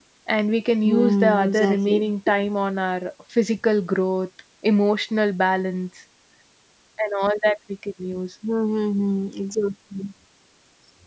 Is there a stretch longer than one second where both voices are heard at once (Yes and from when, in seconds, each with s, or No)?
Yes, from 0.8 s